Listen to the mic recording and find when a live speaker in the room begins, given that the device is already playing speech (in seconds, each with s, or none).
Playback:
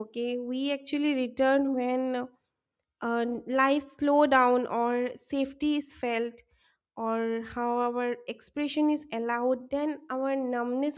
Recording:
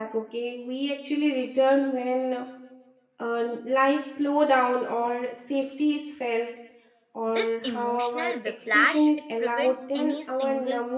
7.2 s